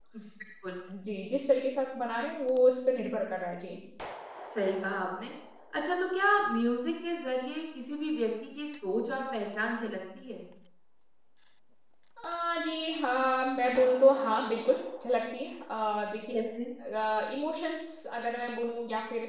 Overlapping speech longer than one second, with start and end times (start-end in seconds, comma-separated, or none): none